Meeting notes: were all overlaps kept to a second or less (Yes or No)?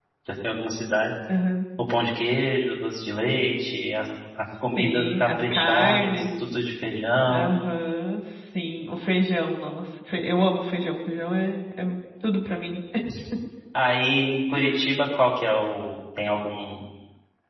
No